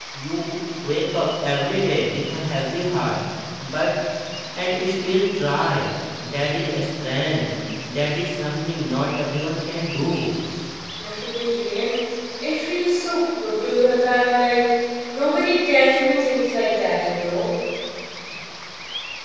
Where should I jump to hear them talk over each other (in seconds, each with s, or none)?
none